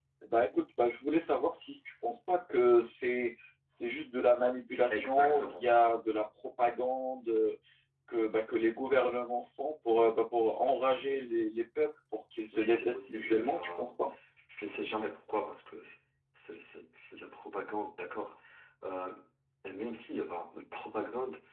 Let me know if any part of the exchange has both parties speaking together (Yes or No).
Yes